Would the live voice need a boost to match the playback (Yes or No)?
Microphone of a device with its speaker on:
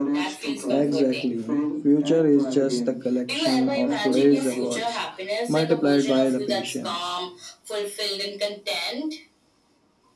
No